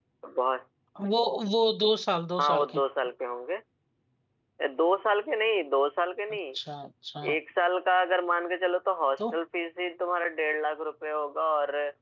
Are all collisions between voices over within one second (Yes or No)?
Yes